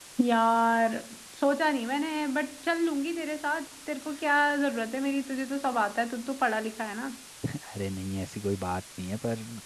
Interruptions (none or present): none